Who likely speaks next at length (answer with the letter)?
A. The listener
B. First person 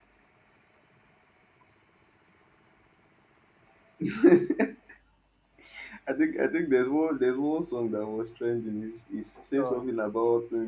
B